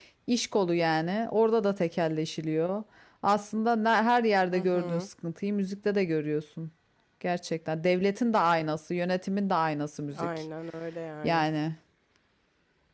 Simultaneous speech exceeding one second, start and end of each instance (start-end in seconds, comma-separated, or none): none